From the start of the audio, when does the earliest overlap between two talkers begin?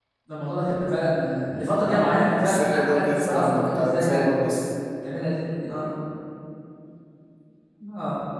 2 s

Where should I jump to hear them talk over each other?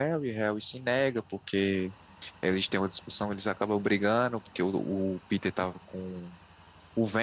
none

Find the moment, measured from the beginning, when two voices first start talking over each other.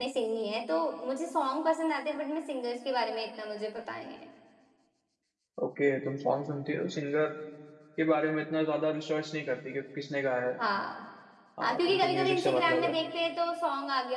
12 s

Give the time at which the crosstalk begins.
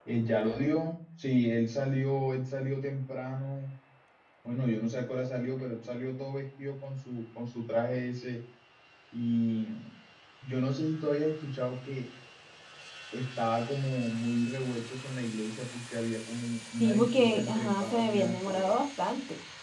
17 s

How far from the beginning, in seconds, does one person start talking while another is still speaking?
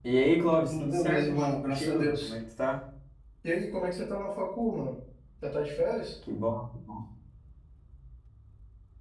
1 s

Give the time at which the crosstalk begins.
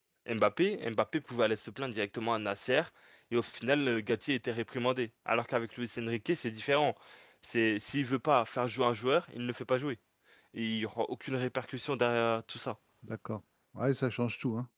none

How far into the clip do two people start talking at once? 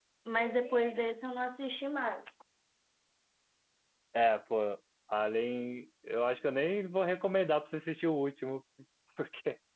none

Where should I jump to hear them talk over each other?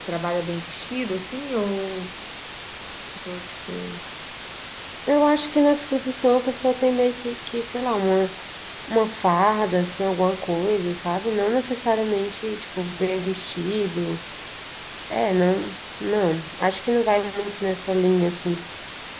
none

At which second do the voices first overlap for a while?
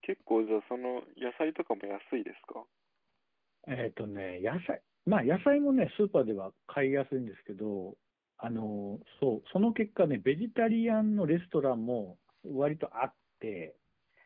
none

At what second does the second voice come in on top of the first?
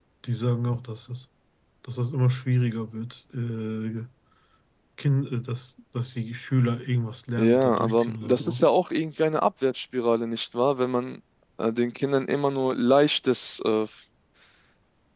7 s

